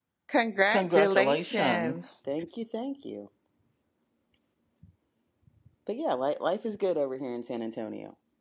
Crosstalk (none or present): present